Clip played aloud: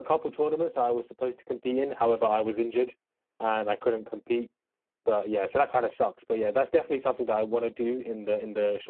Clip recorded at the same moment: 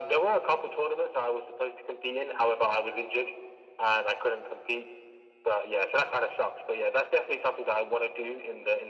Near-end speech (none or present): none